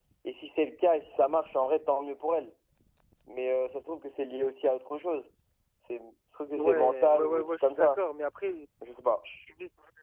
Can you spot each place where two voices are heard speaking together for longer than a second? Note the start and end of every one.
6.5-8.0

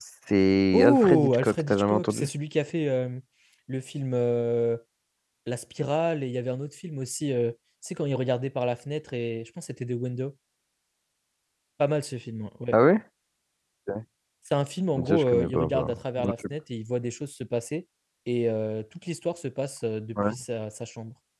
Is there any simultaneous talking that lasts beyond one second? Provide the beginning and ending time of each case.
0.7-2.3, 15.0-16.3

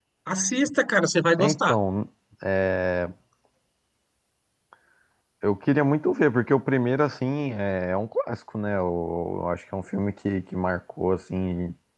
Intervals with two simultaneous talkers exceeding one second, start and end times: none

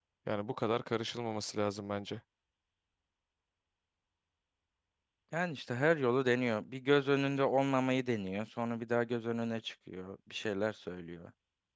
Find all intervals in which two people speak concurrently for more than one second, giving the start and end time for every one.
none

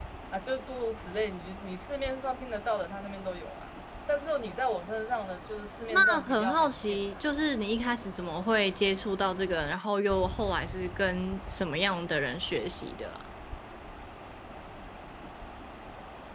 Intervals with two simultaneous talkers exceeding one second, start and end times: 5.9-7.2

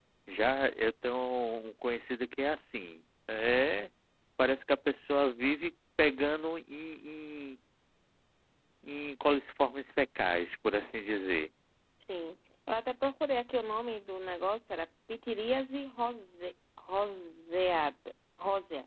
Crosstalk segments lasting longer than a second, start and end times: none

